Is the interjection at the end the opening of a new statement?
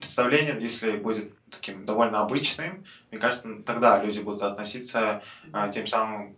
No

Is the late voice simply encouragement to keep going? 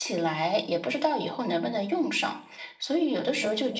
Yes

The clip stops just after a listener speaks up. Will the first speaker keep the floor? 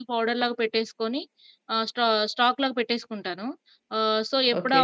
Yes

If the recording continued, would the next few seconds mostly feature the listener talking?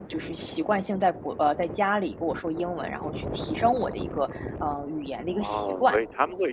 Yes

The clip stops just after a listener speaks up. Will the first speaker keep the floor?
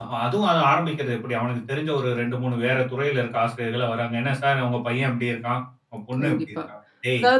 No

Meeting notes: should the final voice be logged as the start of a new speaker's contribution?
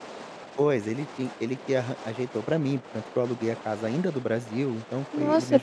Yes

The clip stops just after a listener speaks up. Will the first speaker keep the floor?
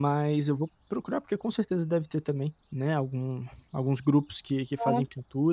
Yes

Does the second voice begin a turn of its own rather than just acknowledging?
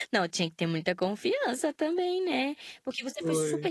No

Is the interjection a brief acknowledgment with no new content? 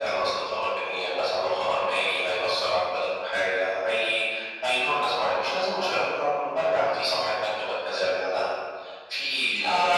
No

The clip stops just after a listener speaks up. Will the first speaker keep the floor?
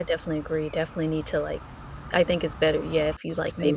Yes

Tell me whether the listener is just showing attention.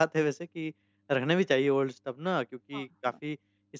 Yes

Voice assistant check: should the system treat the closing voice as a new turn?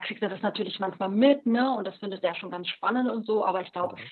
No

